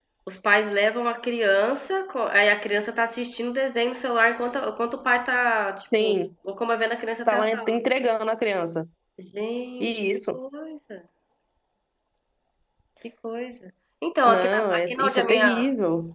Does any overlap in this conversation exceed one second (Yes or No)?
Yes